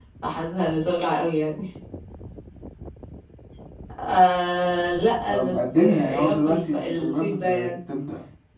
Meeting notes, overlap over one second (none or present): present